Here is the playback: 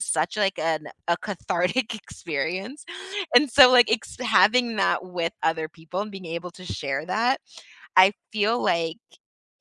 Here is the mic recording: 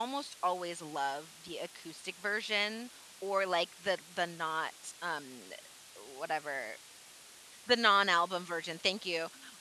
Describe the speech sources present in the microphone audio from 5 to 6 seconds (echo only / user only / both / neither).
user only